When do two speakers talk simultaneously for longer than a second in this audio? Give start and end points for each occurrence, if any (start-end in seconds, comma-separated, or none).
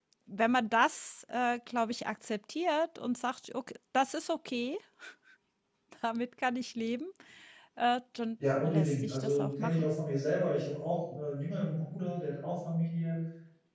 8.6-9.9